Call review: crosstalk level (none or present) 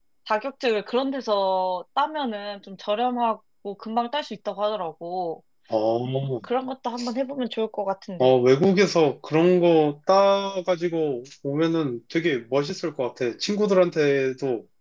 none